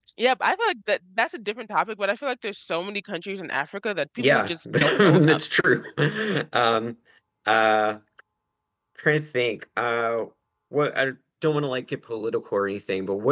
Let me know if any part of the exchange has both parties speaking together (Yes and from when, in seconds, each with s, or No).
Yes, from 4.2 s